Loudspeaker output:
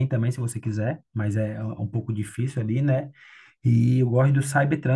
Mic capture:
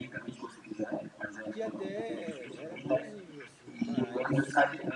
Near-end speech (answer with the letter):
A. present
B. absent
A